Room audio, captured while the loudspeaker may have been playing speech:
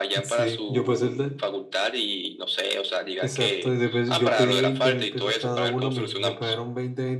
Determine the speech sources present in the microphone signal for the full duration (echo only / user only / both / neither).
both